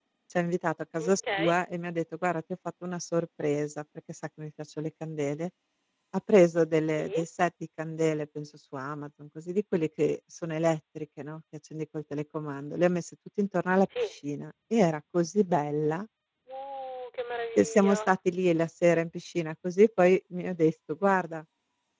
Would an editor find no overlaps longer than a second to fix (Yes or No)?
Yes